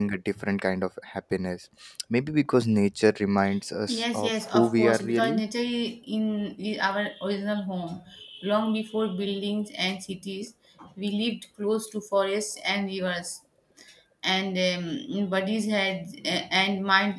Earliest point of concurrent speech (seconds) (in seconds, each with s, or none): 3.9 s